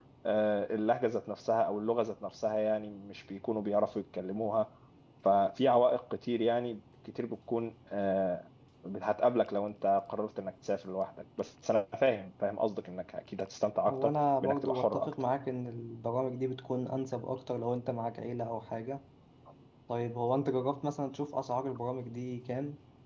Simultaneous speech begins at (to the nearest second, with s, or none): 14 s